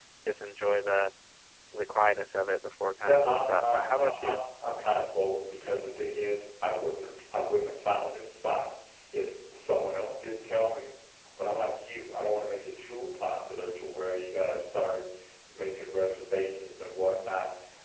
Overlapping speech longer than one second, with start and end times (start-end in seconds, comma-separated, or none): 3.0-4.4